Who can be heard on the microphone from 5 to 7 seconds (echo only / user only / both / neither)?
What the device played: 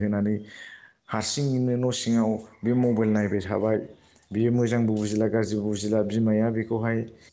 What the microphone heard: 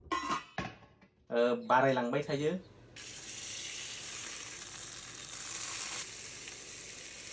neither